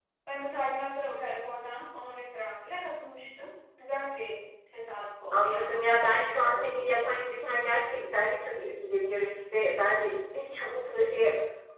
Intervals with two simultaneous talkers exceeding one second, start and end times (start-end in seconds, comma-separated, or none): 5.3-7.2